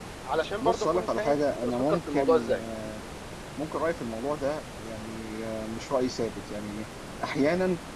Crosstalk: present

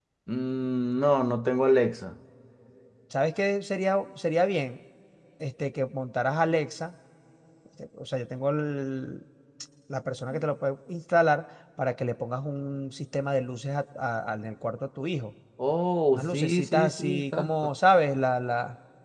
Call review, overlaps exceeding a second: present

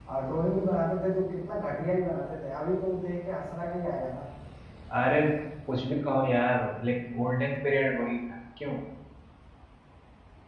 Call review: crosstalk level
none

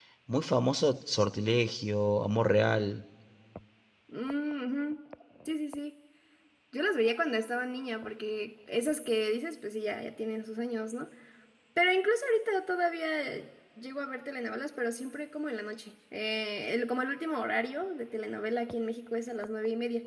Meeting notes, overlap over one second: none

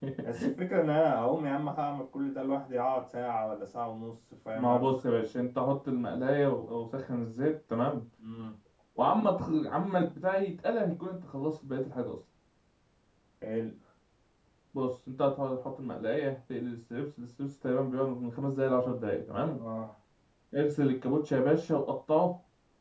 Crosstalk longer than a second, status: none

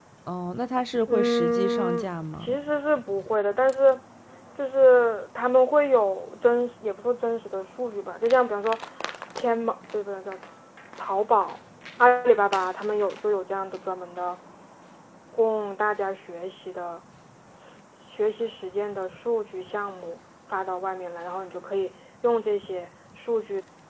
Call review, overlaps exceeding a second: present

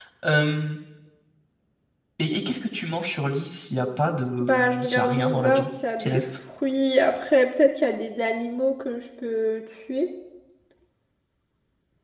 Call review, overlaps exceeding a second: present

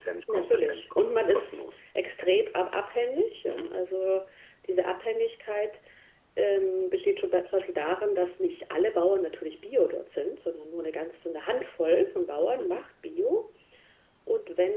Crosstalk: present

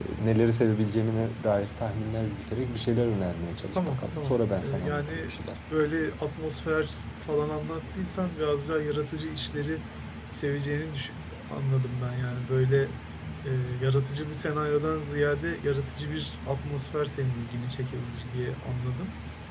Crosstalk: present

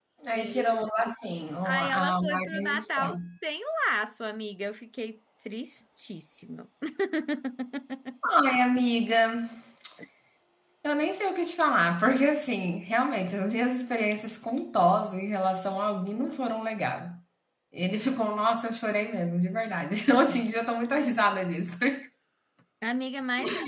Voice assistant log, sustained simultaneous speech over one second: present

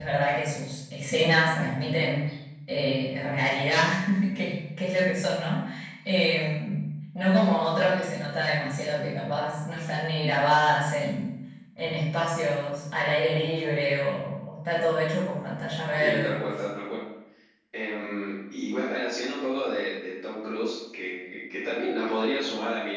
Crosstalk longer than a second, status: none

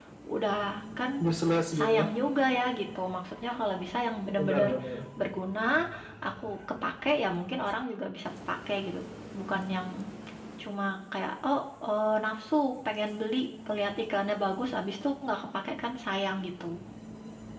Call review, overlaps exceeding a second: none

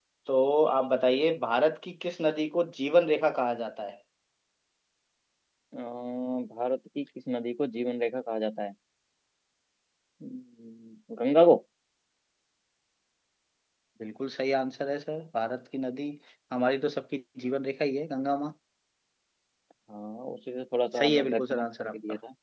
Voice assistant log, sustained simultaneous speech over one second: present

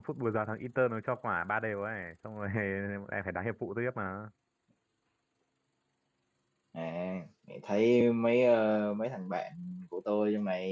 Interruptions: none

